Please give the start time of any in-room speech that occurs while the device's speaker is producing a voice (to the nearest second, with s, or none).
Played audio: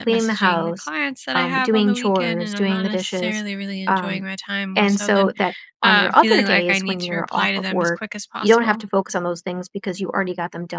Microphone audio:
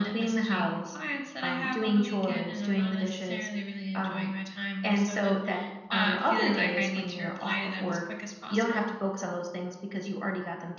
none